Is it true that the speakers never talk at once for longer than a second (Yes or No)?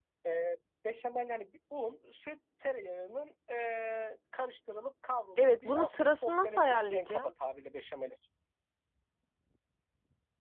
No